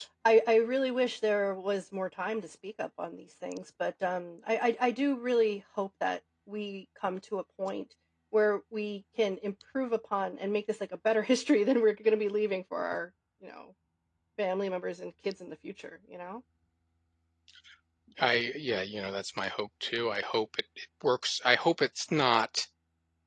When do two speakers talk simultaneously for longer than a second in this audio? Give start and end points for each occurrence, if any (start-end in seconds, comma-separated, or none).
none